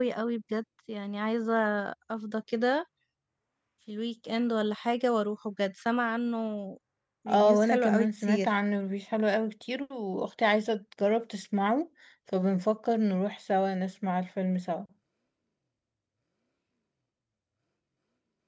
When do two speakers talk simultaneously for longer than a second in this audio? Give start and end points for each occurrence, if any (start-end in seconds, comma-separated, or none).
7.3-8.5